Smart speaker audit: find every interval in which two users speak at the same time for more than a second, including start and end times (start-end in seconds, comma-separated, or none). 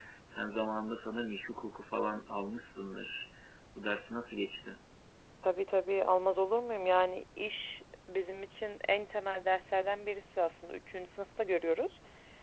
none